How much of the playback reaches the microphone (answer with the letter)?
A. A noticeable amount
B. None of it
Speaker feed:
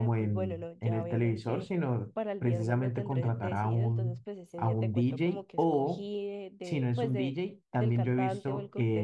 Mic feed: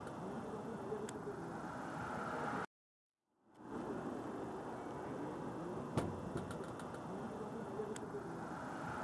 B